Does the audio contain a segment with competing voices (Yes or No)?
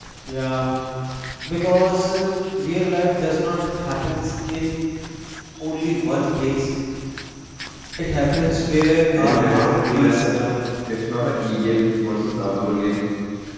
Yes